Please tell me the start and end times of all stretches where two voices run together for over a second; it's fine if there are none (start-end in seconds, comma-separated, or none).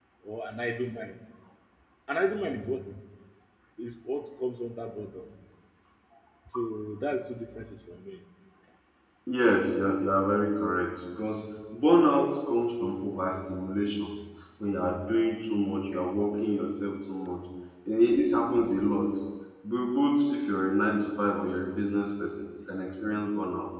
none